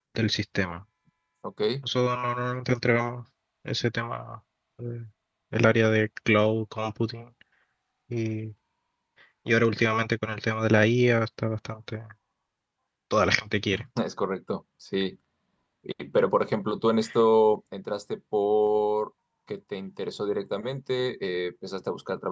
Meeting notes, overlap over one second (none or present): none